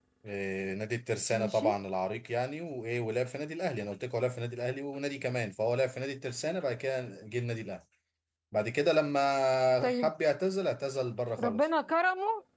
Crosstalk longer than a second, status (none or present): none